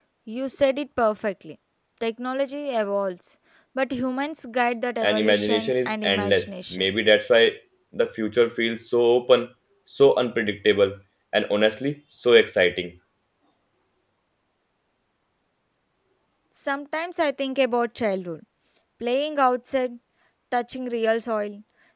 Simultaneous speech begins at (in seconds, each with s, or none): 5.0 s